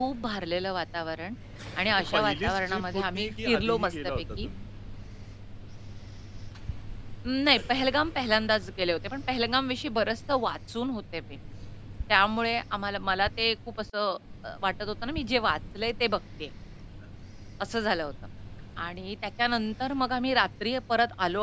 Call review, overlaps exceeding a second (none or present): present